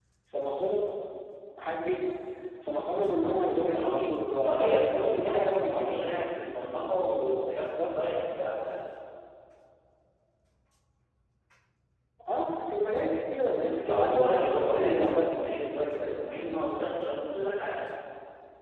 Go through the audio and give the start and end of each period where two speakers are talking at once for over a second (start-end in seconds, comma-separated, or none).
4.4-6.1, 13.5-15.5